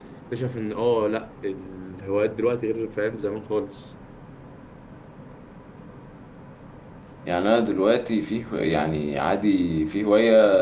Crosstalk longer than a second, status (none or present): none